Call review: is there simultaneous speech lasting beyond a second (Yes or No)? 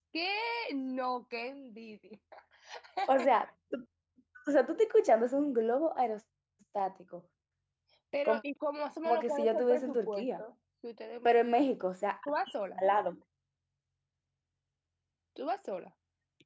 Yes